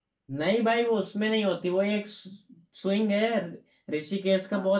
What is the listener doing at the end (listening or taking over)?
listening